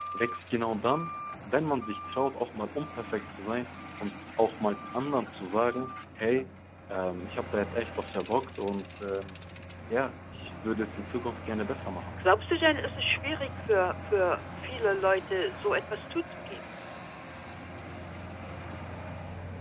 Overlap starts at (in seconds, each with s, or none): none